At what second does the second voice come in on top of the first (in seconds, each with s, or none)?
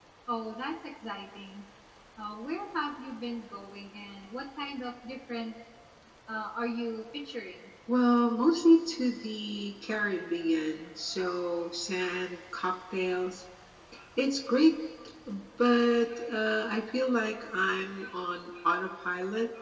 none